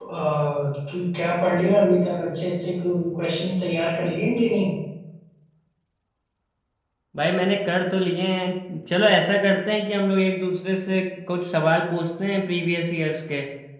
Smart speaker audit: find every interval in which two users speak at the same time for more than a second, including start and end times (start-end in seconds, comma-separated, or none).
none